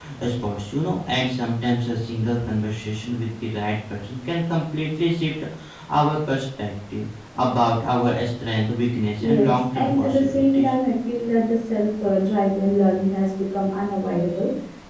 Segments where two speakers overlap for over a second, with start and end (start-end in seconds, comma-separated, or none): 9.2-10.7